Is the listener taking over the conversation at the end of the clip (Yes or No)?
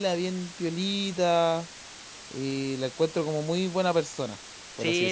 Yes